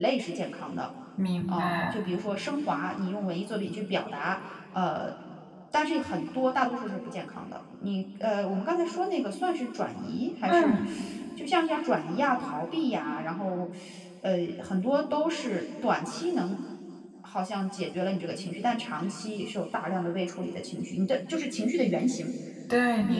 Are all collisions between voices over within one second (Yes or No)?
Yes